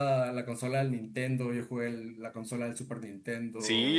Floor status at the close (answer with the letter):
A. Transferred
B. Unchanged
A